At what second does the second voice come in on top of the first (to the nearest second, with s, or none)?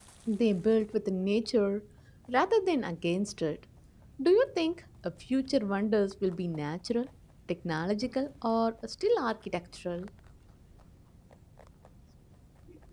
none